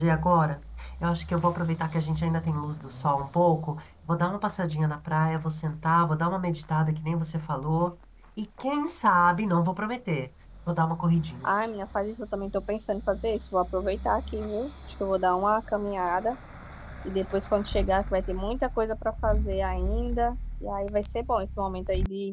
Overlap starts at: none

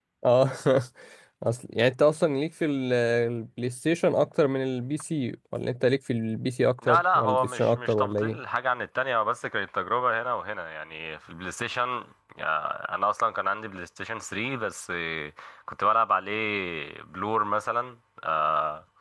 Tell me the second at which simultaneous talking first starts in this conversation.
6.8 s

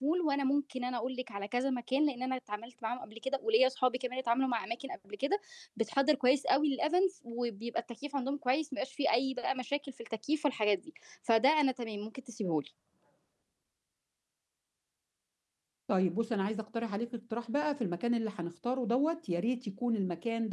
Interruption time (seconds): none

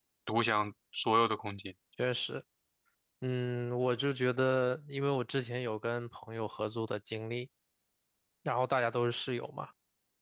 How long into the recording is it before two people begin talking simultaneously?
none

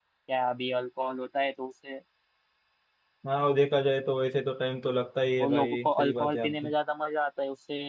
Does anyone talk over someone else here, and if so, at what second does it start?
5.4 s

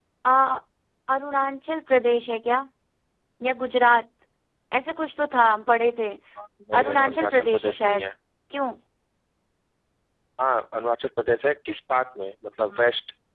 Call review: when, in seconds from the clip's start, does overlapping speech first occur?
6.8 s

